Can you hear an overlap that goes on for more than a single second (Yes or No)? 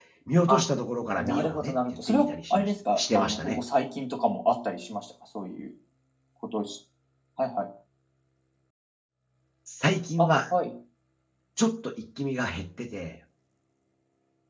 Yes